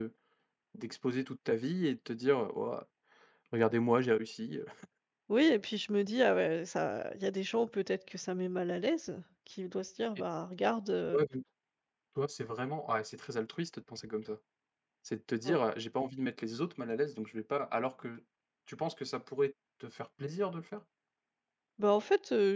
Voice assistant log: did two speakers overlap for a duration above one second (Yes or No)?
No